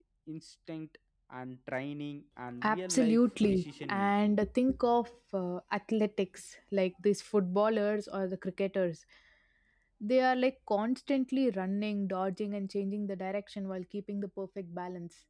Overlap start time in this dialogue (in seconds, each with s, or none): 2.6 s